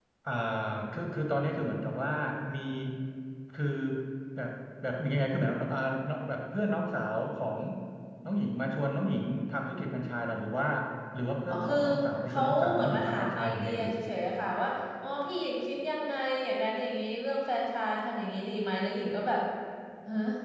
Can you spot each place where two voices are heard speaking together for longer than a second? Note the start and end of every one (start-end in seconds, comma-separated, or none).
12.3-13.9